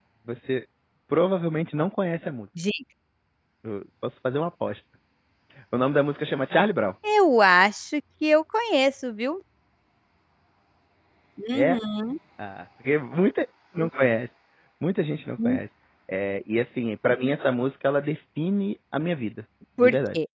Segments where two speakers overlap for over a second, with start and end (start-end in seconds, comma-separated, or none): none